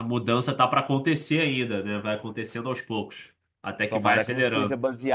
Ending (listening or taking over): taking over